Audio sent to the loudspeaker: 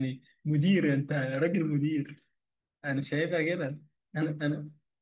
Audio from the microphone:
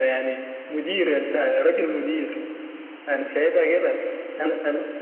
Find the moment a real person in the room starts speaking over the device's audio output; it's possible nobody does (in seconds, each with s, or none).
none